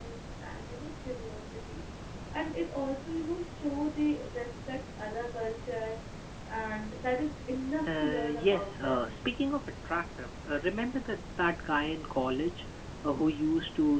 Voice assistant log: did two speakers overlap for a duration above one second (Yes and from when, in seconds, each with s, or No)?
Yes, from 7.8 s